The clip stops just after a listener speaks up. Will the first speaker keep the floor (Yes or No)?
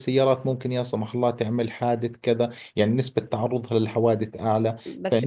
No